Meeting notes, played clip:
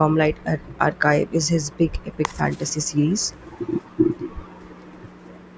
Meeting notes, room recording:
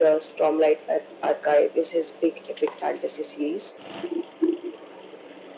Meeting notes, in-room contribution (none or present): none